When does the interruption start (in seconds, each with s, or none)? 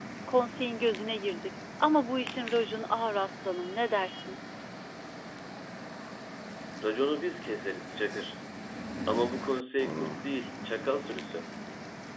none